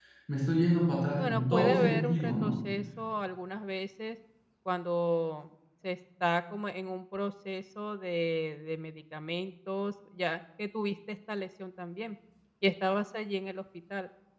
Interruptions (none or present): present